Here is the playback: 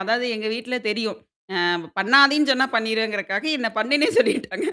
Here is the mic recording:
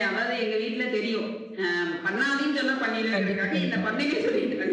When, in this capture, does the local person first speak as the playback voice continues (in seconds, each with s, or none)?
3.1 s